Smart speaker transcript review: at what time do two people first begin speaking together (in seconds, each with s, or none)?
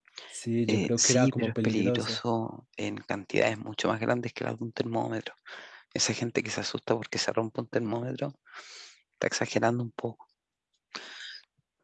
0.7 s